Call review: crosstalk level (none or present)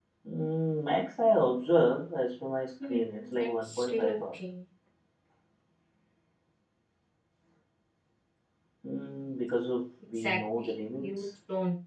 present